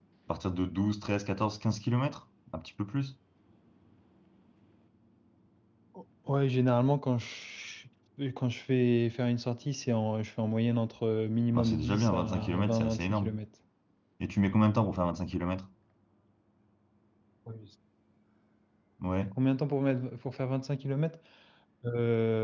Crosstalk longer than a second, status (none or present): present